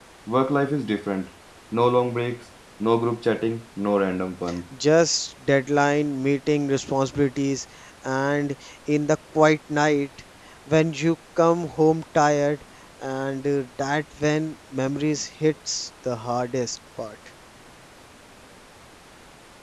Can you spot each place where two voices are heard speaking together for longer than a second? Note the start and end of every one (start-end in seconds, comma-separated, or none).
none